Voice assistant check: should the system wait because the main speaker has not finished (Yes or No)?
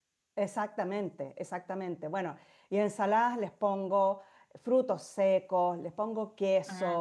Yes